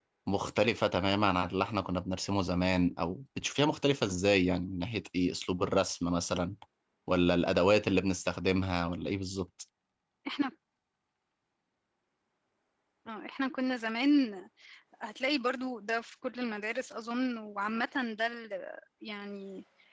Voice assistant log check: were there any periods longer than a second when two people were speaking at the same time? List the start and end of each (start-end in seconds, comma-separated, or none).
none